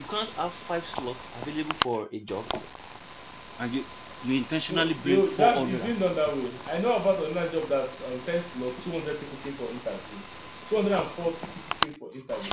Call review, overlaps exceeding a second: present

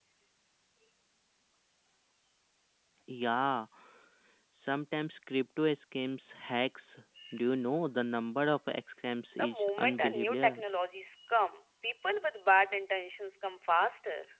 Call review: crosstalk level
present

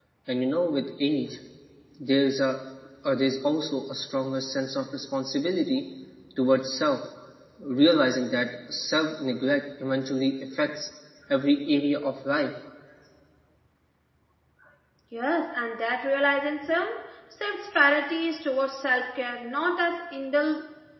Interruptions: none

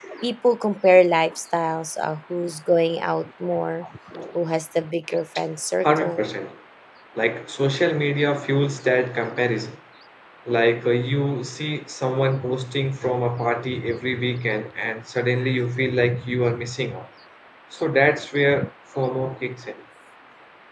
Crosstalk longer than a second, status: none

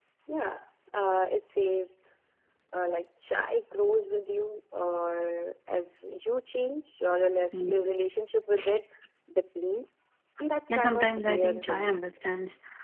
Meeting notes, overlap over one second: present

